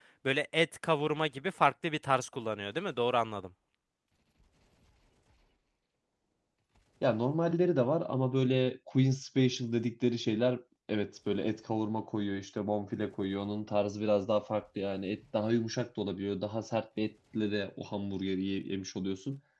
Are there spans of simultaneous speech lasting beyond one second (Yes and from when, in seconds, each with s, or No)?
No